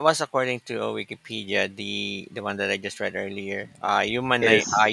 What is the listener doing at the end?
listening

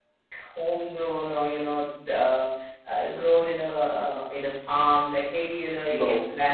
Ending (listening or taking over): listening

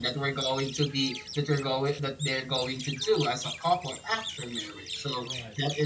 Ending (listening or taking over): listening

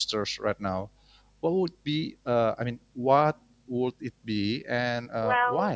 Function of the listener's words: taking over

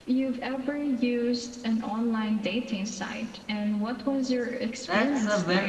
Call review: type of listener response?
taking over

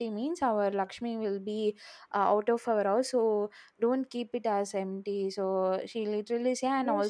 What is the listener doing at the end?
taking over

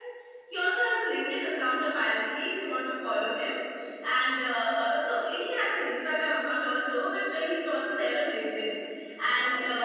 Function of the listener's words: listening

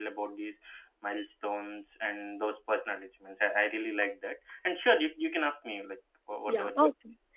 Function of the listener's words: taking over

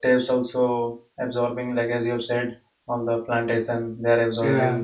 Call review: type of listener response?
listening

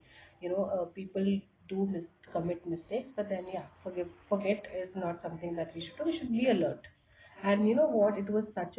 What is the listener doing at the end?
listening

